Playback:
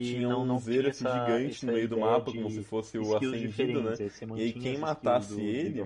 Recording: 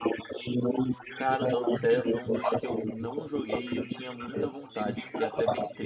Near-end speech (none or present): present